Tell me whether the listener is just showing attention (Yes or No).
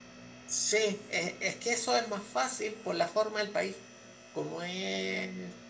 Yes